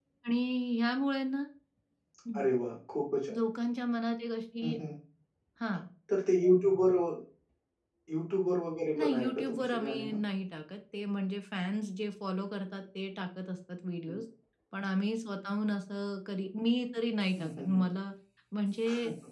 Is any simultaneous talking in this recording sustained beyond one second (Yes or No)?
Yes